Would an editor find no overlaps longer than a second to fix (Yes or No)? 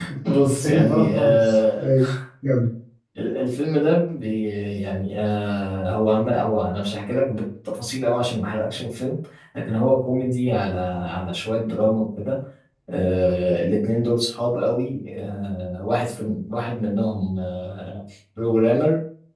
No